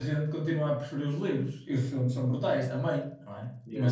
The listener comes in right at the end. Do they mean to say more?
No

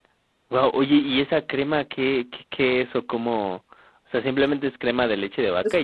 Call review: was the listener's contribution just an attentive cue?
No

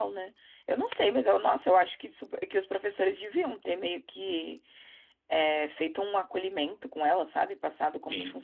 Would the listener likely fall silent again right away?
No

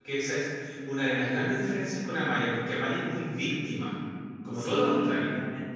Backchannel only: No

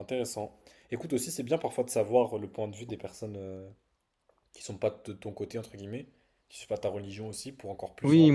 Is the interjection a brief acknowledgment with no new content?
No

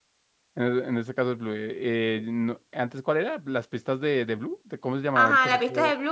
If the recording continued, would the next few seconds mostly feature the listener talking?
Yes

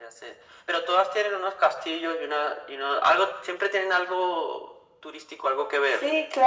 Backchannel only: No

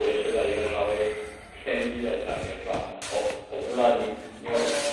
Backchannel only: No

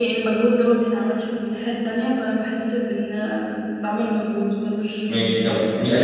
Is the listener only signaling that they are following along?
No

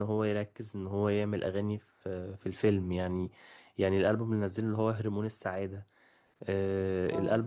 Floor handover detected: No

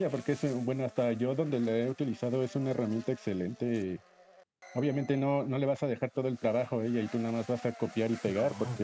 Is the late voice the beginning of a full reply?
No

